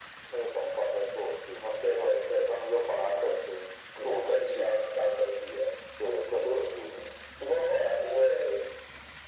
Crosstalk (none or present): present